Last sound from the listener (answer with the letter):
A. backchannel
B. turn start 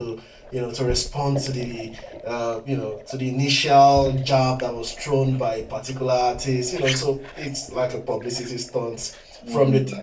B